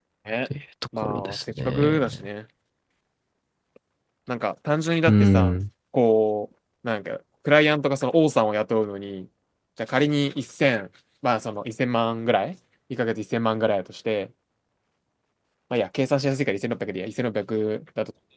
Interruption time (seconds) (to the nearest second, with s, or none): 1 s